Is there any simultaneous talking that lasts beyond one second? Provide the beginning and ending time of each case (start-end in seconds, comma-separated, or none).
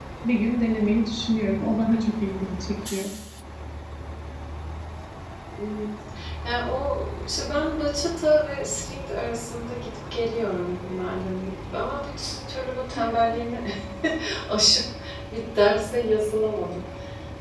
none